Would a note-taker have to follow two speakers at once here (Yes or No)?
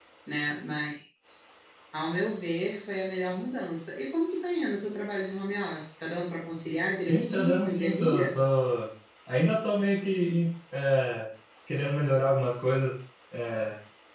Yes